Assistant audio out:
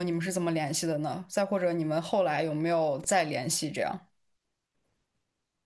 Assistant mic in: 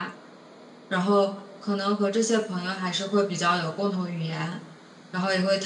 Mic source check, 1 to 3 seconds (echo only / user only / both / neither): user only